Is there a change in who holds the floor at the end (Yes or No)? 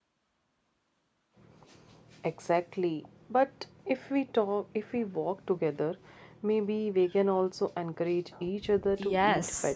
Yes